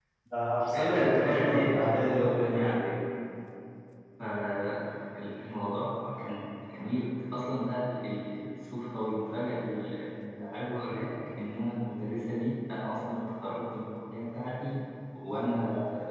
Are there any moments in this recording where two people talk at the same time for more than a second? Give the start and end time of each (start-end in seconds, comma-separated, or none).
0.6-2.6